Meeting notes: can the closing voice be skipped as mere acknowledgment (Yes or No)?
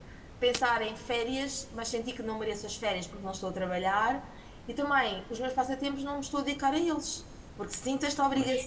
Yes